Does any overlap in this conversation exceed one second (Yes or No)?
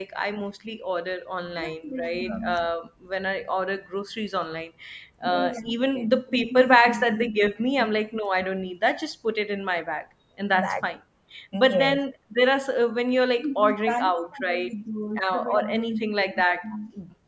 Yes